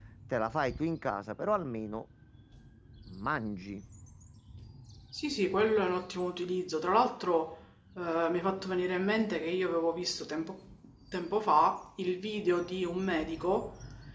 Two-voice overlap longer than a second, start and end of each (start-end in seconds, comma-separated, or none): none